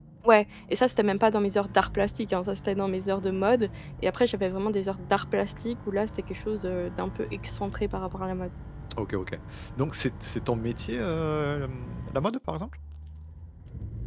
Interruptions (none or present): none